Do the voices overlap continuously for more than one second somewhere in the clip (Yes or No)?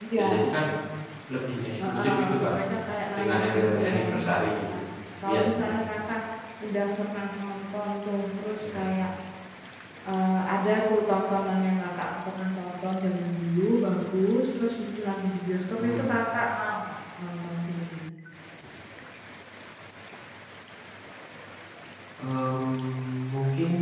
Yes